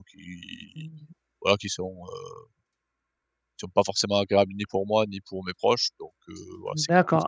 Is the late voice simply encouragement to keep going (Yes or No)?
No